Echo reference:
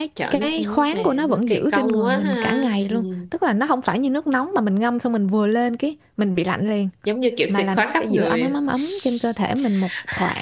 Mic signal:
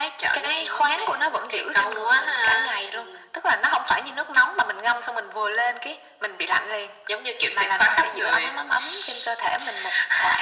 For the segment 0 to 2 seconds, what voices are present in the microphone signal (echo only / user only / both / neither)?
echo only